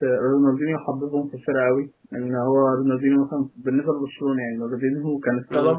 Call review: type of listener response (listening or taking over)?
listening